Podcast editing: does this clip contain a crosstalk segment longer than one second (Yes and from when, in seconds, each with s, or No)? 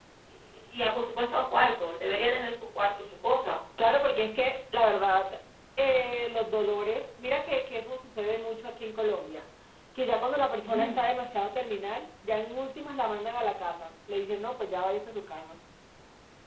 No